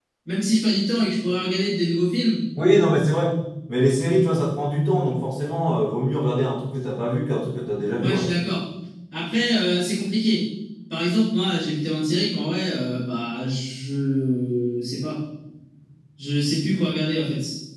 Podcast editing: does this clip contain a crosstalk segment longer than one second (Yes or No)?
No